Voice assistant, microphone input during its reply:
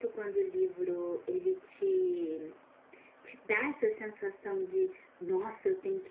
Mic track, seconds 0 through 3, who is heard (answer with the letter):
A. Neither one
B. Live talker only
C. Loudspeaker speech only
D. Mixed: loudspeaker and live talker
B